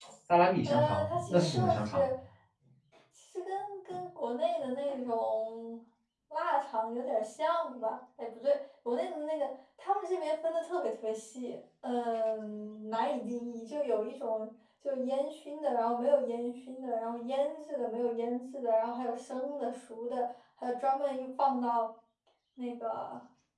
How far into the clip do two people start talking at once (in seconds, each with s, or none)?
0.7 s